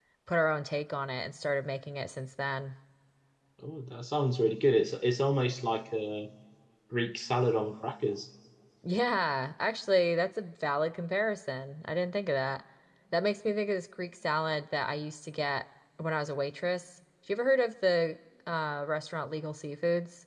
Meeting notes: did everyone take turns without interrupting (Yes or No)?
Yes